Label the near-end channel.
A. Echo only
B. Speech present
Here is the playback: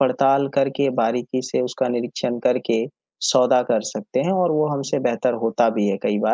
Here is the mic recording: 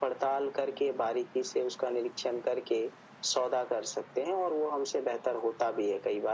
A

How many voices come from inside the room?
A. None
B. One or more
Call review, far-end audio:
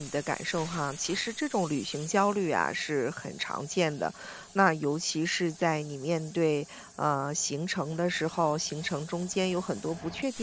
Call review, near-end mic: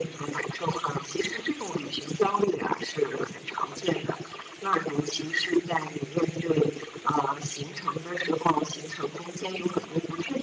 A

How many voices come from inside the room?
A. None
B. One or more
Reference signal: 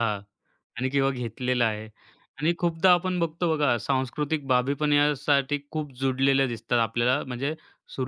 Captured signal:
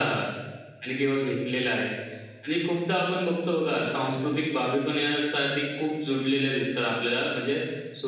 A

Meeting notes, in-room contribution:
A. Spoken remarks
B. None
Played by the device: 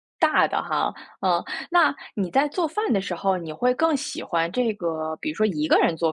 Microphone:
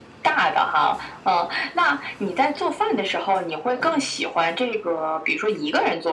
B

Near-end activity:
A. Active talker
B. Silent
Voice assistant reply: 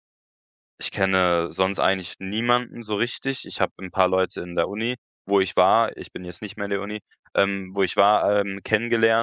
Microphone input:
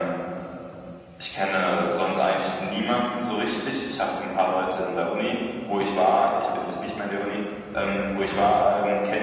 B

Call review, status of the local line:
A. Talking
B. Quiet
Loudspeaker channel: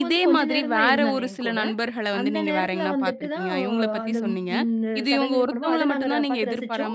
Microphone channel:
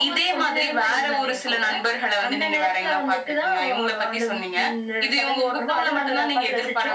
B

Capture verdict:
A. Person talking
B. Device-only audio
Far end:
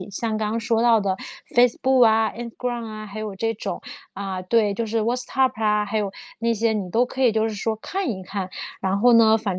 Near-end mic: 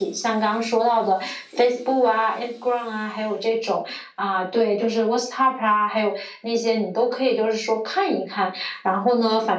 B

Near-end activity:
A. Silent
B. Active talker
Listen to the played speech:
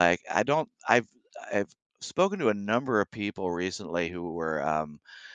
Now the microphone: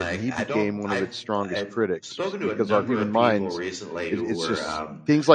B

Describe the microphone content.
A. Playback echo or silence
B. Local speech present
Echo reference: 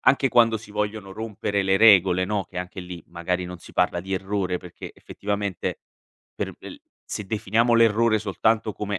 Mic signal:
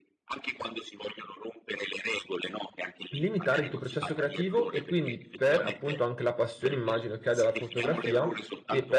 B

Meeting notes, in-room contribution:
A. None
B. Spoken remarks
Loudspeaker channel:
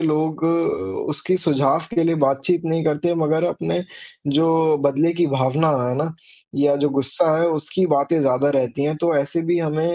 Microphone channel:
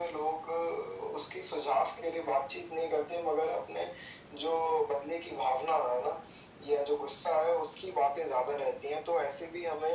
A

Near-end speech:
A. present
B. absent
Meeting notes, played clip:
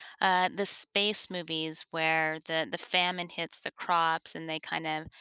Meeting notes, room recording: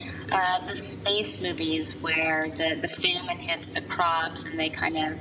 B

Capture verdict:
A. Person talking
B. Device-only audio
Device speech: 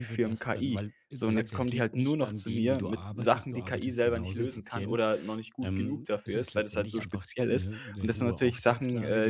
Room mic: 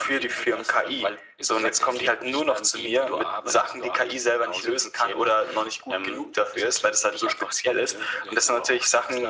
B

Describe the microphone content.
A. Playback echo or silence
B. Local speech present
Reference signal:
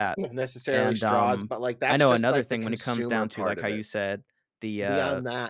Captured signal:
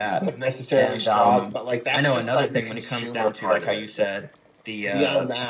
A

